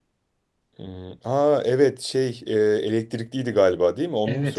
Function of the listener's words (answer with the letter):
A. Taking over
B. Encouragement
A